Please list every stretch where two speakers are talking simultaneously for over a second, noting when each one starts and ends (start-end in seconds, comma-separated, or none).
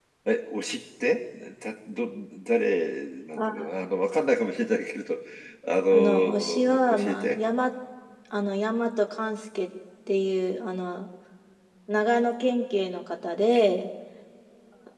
5.9-7.4